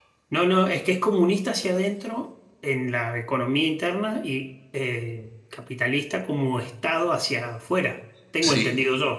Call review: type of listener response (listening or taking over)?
taking over